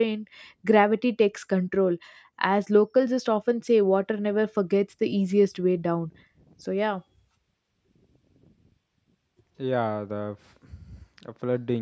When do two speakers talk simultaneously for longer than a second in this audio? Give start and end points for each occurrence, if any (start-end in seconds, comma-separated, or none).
none